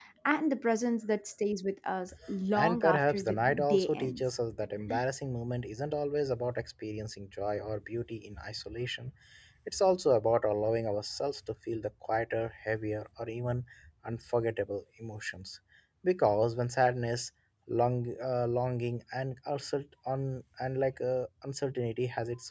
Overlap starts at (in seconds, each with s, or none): 2.5 s